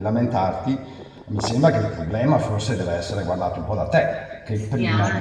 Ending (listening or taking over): taking over